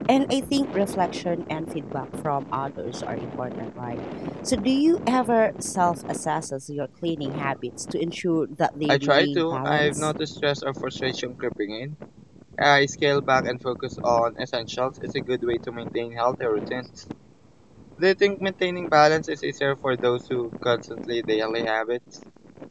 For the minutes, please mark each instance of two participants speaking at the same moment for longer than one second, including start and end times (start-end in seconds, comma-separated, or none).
8.9-10.1